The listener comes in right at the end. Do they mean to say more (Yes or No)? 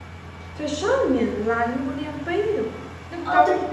Yes